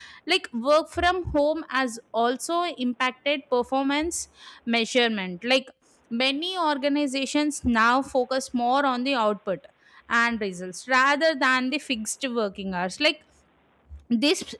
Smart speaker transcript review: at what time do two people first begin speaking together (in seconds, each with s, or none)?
none